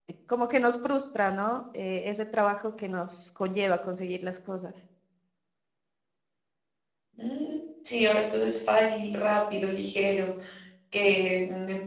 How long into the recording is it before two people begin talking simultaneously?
none

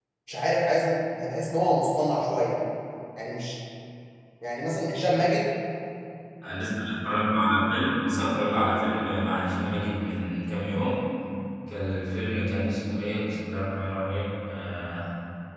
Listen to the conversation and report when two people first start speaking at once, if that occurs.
none

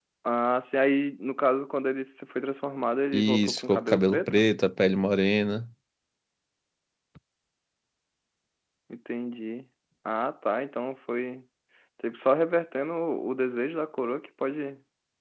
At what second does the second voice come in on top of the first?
3.1 s

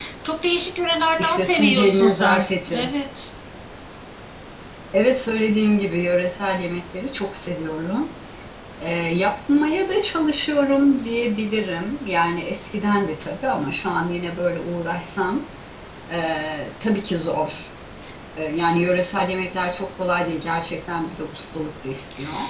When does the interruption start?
1.2 s

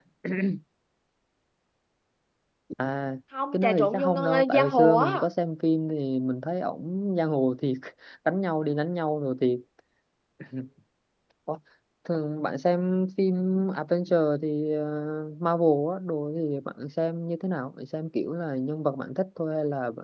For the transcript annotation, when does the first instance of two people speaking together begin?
3.5 s

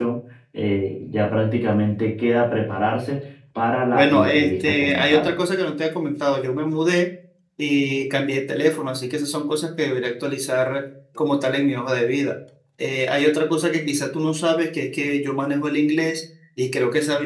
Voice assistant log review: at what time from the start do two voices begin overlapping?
3.9 s

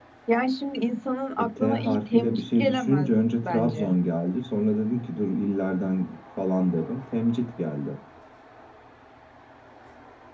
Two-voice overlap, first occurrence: 1.4 s

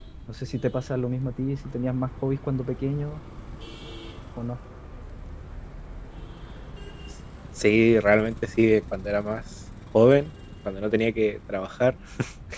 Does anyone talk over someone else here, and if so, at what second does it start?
none

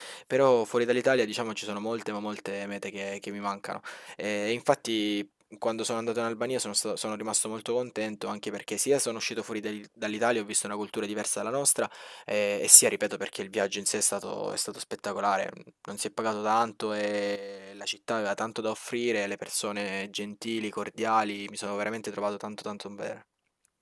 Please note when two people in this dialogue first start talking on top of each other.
none

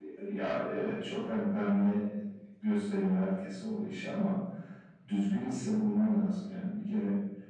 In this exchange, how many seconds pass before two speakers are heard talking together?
none

